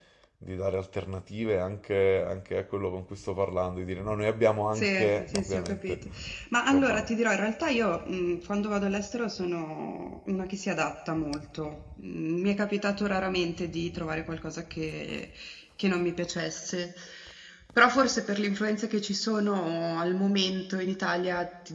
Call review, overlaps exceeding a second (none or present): present